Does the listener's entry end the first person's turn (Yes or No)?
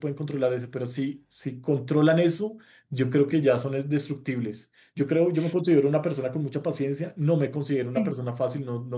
No